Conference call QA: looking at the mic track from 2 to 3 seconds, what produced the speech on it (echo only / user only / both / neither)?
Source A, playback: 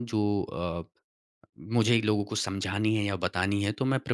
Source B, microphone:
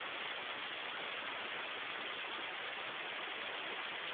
neither